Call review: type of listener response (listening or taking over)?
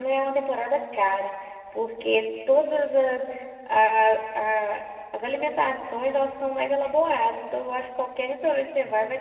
listening